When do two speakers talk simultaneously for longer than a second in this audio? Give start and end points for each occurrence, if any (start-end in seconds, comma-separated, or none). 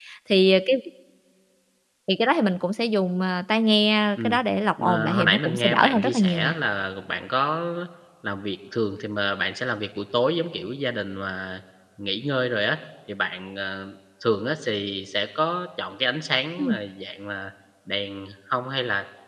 4.8-6.5